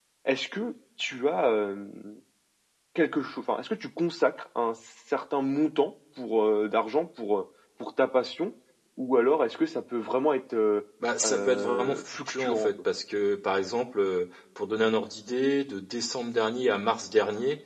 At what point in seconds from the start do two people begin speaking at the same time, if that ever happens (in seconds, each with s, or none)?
11.2 s